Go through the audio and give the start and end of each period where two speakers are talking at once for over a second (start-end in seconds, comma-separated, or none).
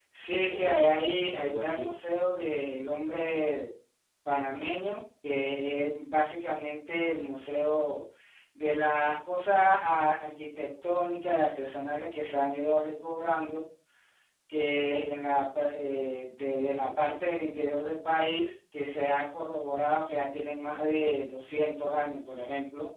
0.5-2.0